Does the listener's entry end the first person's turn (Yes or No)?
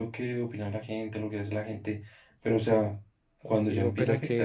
Yes